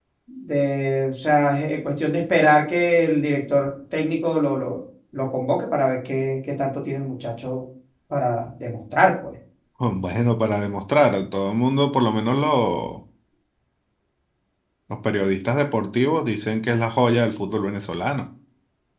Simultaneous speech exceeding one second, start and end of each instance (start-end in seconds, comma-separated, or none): none